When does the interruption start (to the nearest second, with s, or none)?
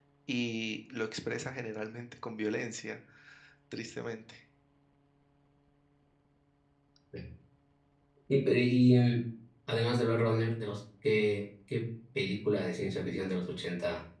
none